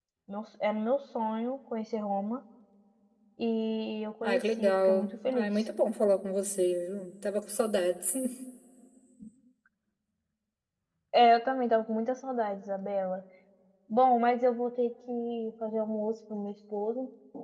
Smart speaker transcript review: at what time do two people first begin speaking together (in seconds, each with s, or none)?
4.2 s